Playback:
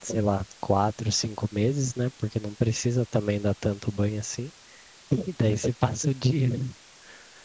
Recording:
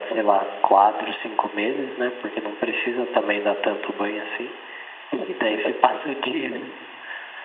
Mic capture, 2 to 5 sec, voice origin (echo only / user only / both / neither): echo only